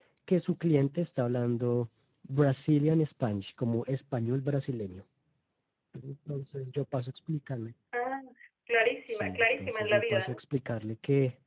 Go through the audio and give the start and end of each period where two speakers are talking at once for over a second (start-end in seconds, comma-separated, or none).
9.1-10.4